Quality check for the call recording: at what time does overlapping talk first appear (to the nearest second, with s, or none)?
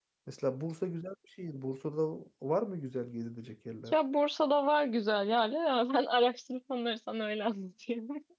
none